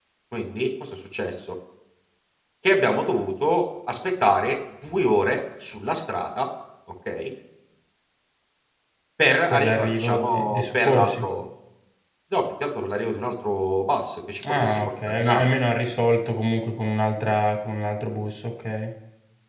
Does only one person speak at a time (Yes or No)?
No